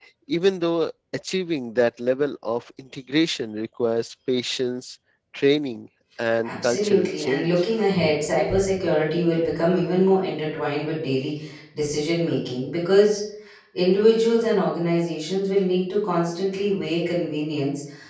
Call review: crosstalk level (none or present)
present